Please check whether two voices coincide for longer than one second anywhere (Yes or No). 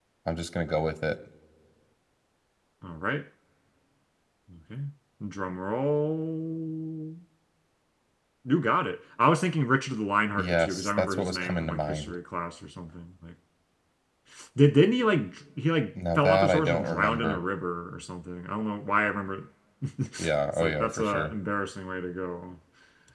Yes